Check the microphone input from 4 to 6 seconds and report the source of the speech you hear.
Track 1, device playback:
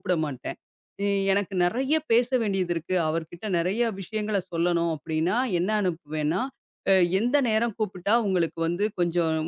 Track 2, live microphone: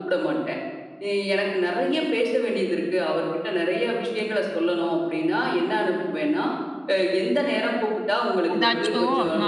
echo only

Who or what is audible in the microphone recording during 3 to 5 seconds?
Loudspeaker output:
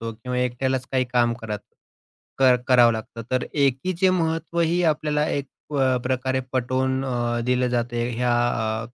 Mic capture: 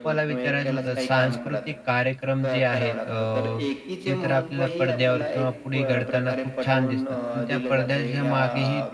both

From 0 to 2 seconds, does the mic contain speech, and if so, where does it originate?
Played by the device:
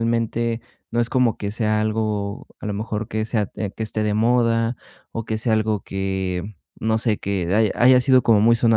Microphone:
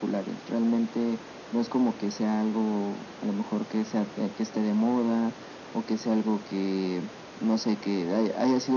echo only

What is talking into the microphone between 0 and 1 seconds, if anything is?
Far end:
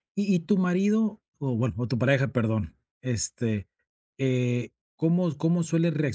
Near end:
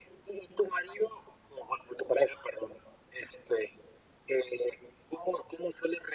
echo only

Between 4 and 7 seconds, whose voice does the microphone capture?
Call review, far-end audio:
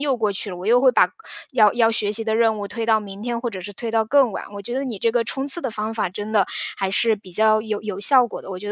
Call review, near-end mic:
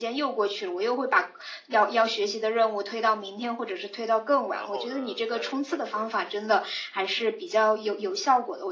both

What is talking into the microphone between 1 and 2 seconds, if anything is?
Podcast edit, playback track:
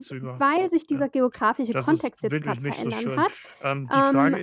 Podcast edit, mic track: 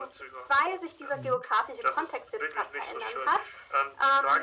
both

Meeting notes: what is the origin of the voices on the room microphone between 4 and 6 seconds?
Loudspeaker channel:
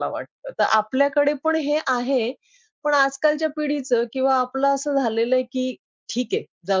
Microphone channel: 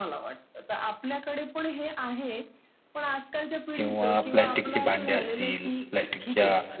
both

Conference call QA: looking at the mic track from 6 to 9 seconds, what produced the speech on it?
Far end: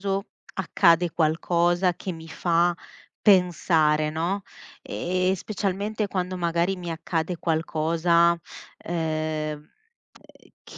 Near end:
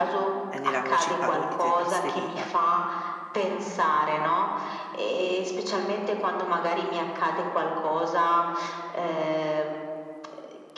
echo only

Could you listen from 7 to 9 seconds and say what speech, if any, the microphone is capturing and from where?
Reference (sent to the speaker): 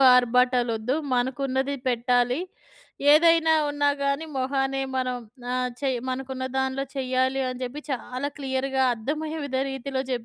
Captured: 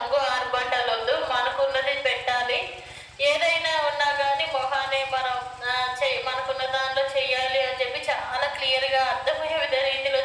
echo only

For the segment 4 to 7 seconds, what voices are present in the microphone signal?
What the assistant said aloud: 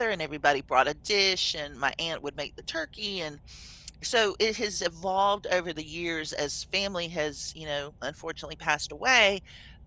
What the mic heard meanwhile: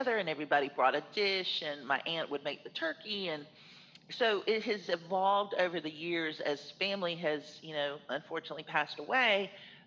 echo only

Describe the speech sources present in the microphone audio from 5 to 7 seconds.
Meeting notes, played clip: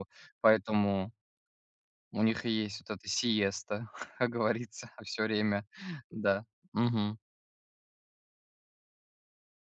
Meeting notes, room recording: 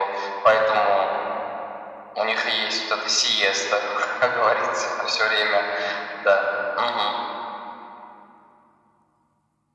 echo only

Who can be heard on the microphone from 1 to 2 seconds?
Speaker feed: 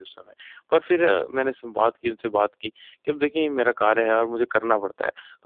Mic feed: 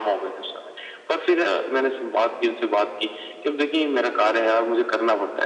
echo only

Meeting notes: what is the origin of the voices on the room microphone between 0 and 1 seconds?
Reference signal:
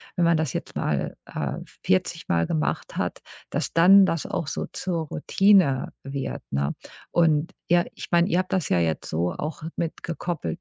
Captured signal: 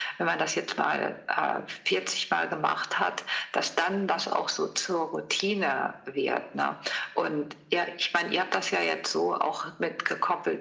echo only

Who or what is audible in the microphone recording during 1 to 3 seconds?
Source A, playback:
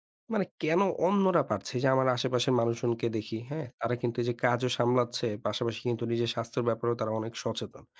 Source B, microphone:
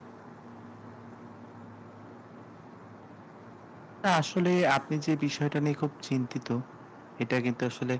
neither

